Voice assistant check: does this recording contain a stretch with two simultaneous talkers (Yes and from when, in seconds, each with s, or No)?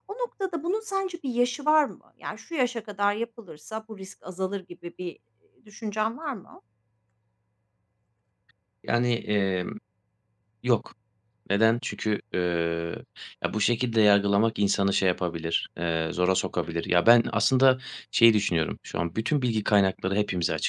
No